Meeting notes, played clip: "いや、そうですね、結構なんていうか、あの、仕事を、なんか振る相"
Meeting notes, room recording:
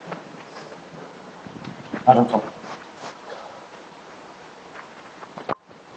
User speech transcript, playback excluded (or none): なるほど。